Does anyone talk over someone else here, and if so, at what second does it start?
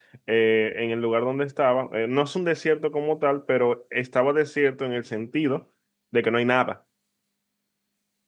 none

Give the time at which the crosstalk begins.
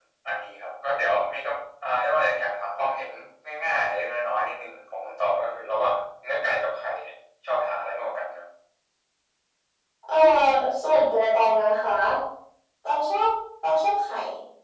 none

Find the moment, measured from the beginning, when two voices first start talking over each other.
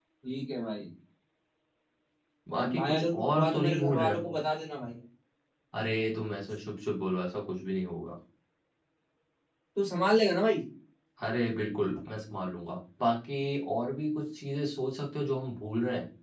2.8 s

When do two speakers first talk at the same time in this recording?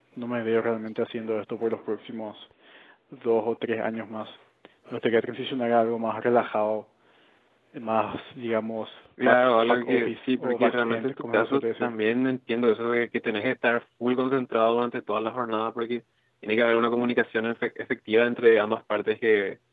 9.2 s

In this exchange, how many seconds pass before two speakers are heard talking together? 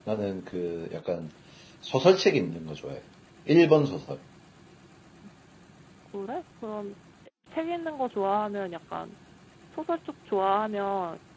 none

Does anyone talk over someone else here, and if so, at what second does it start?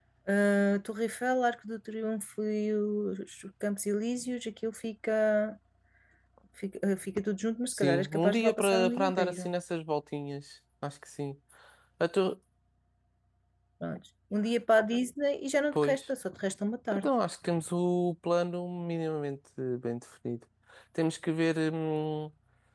7.7 s

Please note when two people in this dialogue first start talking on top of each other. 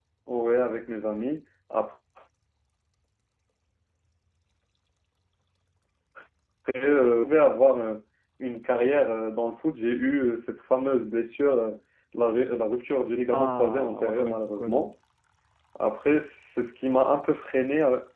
13.3 s

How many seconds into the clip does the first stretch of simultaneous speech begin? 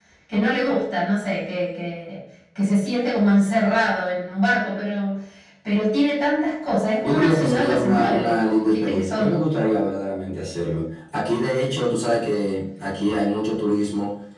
7.0 s

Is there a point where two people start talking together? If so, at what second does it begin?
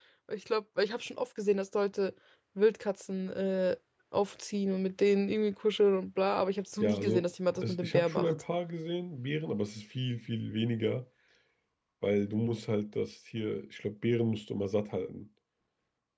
6.8 s

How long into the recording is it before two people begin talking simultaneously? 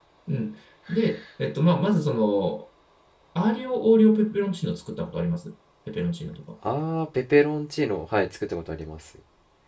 none

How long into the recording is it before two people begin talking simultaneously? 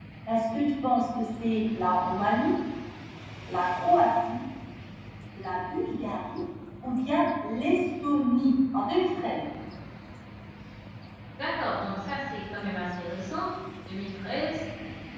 none

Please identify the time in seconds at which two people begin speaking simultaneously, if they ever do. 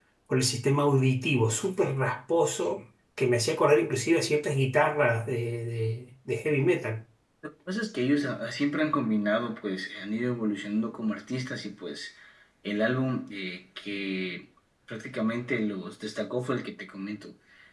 none

